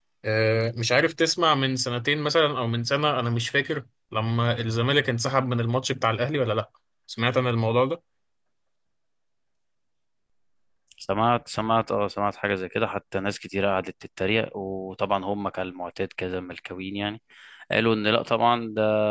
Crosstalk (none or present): none